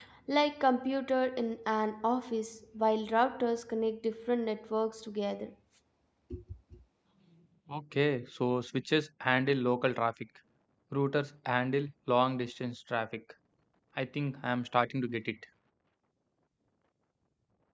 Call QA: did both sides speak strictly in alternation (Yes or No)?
Yes